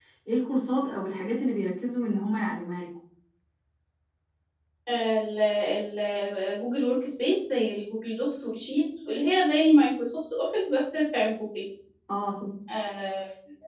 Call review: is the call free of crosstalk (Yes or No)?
Yes